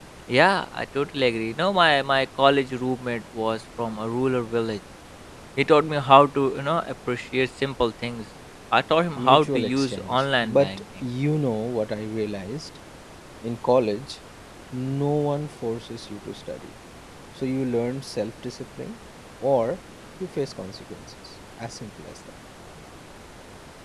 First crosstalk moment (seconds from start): 9.2 s

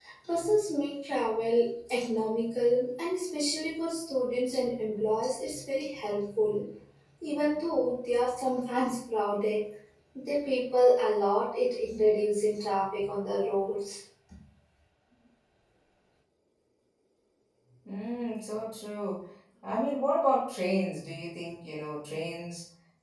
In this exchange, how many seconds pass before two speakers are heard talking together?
none

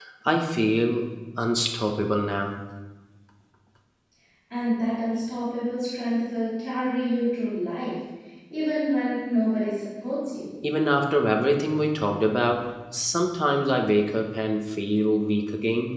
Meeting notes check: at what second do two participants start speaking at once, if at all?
none

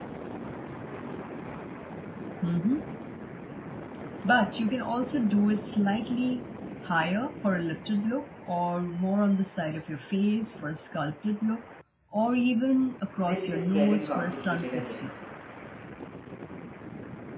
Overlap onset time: 13.2 s

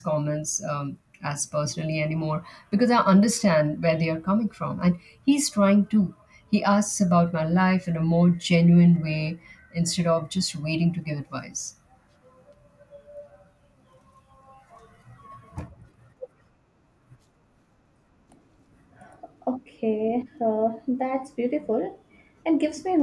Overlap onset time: none

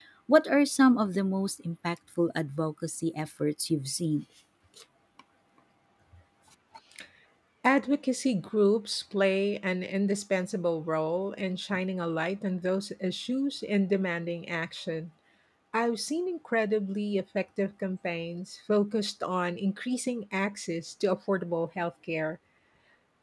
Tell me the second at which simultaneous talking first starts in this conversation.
none

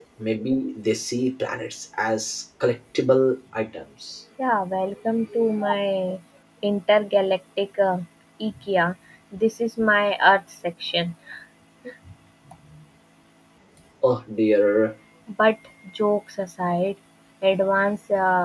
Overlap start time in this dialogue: none

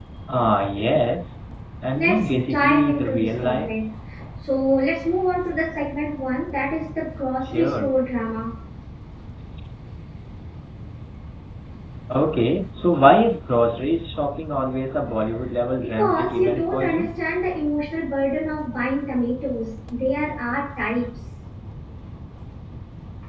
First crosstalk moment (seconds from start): 2.0 s

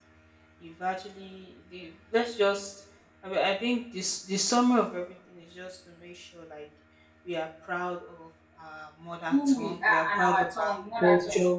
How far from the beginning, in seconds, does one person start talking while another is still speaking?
9.3 s

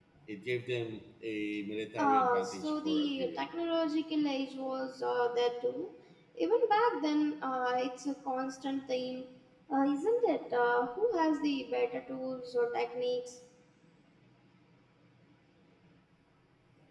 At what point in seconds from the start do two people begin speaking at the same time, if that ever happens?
2.0 s

